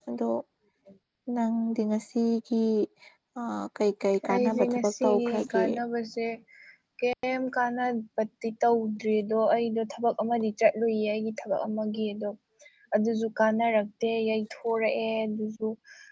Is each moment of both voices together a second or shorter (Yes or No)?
No